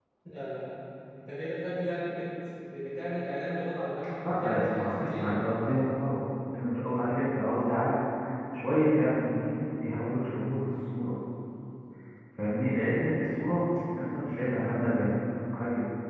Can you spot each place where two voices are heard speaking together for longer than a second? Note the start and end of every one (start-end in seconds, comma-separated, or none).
4.2-5.5